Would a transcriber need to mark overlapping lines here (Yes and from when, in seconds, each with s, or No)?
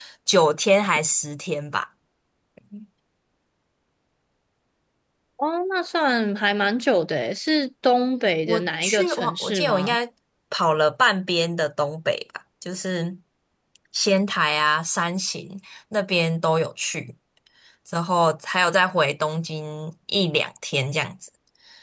Yes, from 8.5 s